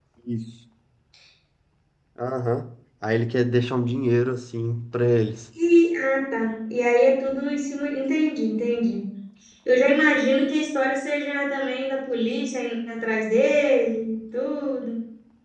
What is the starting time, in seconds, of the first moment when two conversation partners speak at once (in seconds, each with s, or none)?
none